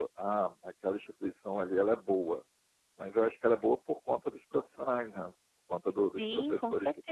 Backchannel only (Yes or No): No